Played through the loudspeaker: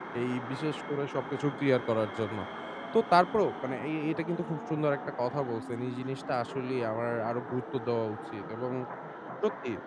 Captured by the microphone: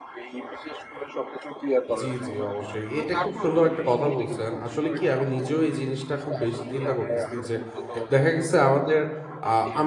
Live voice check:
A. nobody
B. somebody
B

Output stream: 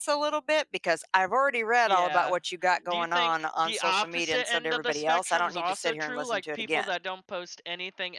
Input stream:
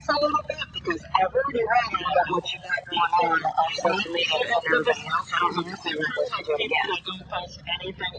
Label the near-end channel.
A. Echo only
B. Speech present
A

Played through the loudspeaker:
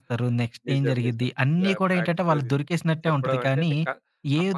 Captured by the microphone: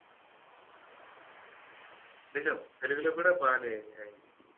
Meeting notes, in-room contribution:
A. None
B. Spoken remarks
B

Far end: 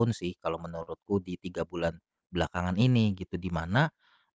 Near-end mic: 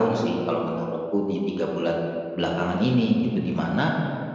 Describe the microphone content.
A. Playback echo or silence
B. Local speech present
A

